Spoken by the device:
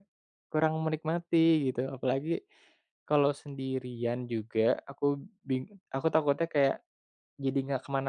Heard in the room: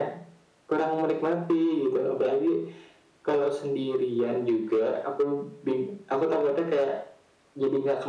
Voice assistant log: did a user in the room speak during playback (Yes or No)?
No